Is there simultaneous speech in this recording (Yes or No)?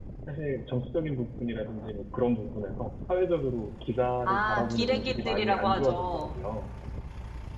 Yes